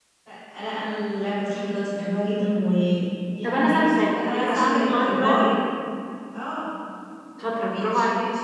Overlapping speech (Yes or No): Yes